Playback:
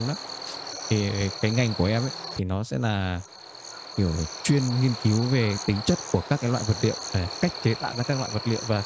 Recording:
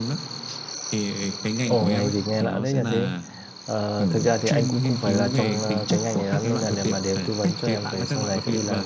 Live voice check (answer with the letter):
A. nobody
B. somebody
B